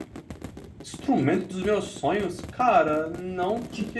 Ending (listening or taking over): listening